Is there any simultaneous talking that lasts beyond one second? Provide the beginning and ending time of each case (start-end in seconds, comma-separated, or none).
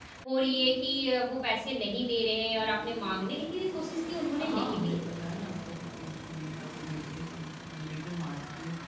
none